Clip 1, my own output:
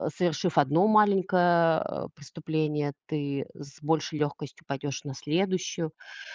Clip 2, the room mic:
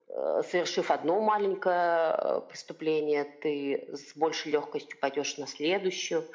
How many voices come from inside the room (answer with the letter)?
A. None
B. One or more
A